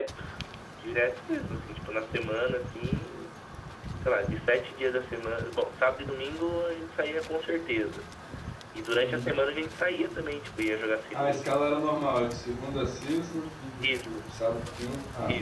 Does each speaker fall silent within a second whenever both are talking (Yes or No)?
Yes